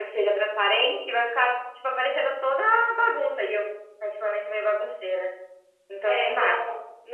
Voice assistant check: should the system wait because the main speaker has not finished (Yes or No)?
No